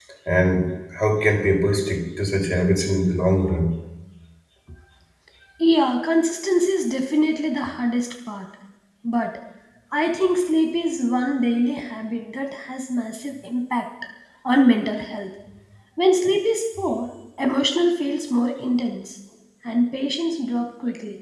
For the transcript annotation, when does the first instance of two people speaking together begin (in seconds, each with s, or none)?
none